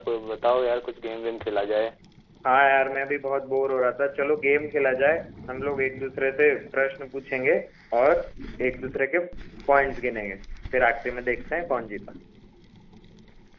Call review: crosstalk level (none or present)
none